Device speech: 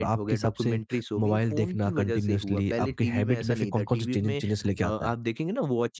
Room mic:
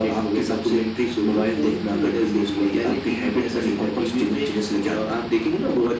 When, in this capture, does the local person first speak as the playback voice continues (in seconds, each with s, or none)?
none